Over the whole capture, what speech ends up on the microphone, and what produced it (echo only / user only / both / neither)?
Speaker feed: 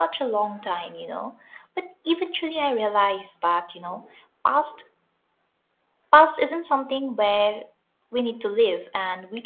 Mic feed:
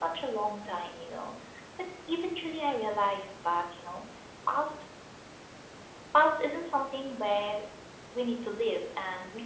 echo only